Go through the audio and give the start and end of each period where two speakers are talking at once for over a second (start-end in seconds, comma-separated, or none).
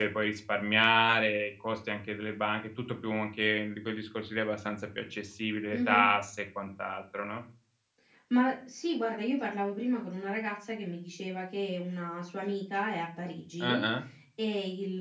none